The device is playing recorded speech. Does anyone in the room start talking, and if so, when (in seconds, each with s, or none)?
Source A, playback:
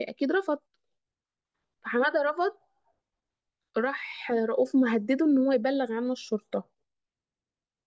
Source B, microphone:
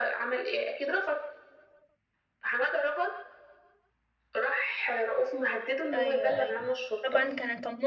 5.9 s